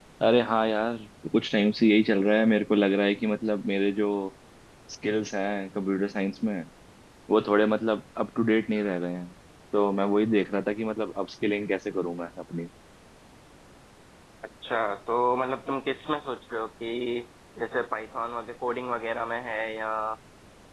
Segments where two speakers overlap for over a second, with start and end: none

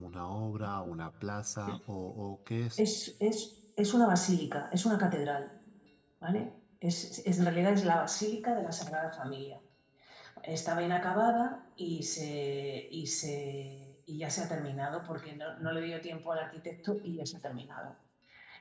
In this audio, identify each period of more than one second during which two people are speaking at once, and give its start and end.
none

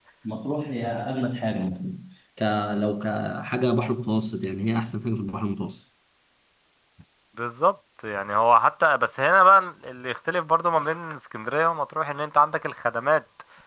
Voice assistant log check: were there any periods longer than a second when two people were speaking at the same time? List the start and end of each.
none

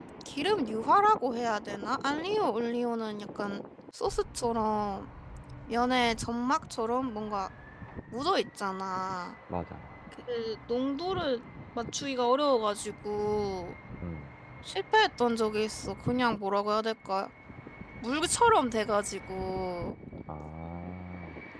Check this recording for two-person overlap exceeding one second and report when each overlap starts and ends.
none

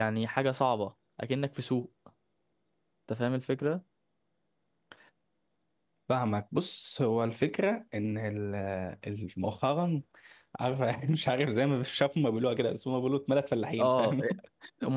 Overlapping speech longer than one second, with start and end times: none

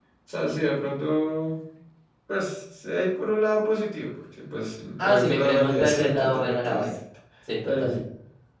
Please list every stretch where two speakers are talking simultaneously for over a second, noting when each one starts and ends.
5.0-6.9

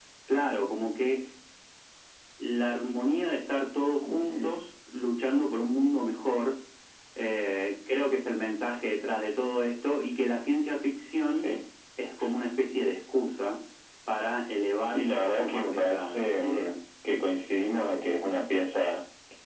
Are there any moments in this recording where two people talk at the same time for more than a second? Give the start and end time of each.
14.8-16.7

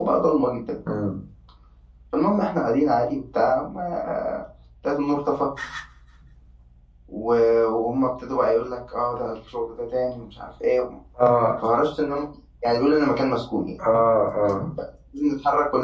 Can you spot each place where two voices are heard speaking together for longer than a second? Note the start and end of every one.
none

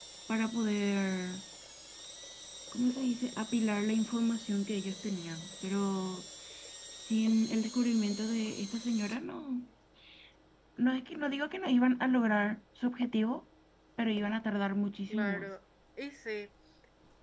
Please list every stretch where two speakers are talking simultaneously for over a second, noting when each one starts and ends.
none

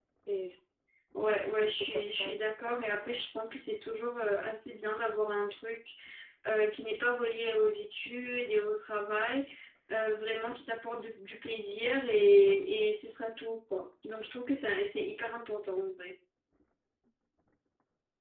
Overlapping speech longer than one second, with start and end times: 1.3-3.3

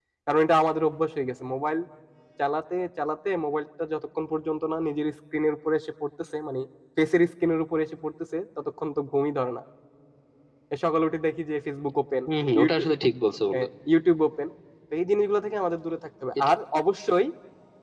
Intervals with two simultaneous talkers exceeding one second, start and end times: none

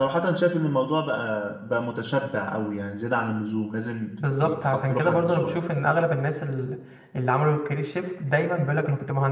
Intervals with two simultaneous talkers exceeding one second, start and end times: 4.4-5.6

